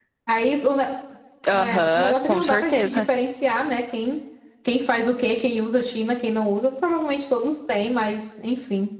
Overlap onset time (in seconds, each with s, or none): 1.5 s